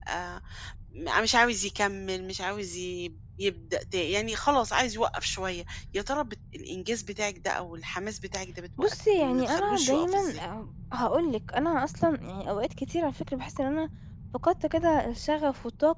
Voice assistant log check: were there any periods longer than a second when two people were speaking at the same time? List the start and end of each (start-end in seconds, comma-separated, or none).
8.8-10.4